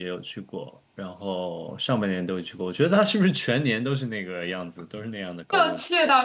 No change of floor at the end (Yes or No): No